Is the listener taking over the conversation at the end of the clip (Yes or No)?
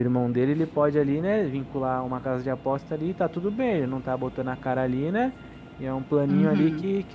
No